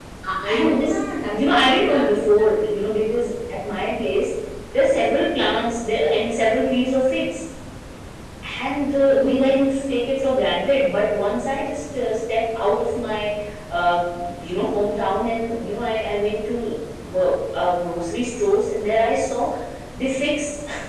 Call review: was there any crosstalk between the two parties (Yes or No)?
Yes